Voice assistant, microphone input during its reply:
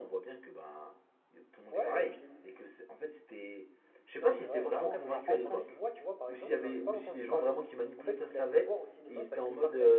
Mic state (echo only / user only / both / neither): both